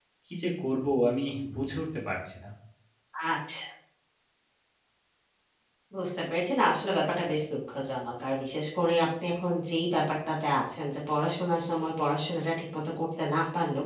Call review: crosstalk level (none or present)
none